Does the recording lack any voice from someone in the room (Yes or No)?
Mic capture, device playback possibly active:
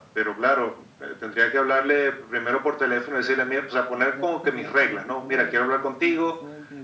No